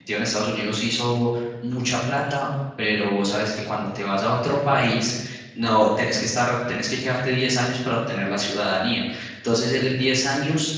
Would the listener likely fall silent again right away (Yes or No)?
Yes